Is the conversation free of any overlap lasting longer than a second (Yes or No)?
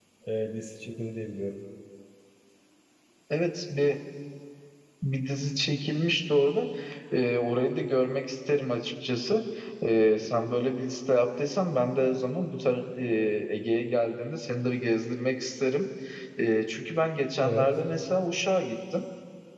Yes